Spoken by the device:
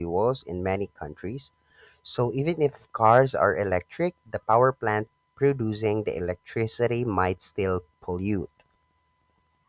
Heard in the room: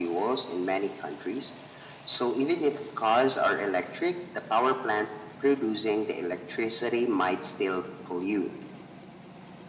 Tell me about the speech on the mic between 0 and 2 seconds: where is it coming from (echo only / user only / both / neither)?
echo only